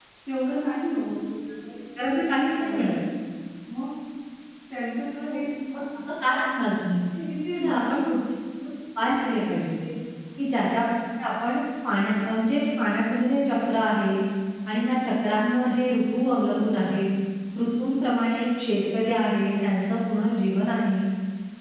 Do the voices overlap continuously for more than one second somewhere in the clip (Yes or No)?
No